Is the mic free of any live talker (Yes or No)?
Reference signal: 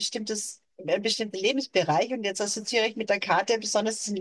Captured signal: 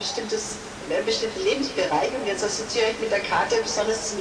Yes